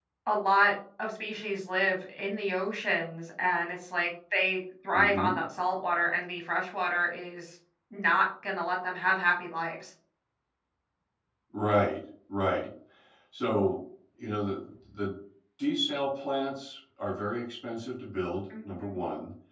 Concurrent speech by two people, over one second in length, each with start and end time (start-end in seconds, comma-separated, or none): none